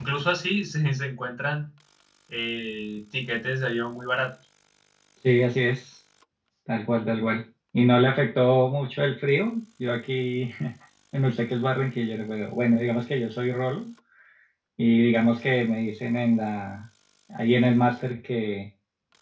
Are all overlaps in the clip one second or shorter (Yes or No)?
Yes